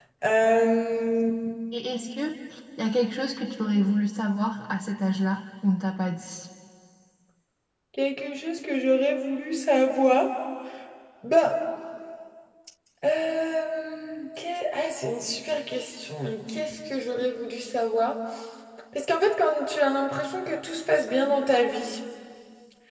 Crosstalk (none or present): none